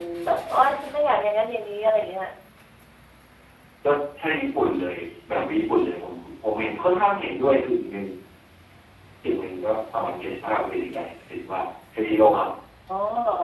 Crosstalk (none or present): none